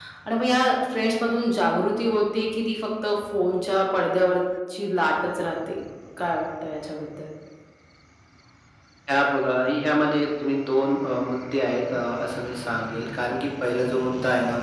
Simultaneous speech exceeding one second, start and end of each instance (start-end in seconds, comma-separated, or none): none